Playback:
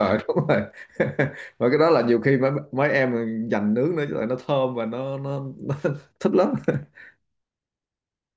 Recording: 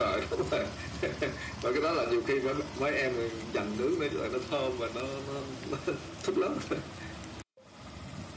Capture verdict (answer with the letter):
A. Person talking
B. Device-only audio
B